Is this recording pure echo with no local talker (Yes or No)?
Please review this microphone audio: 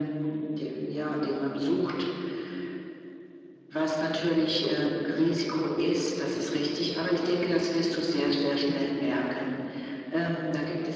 Yes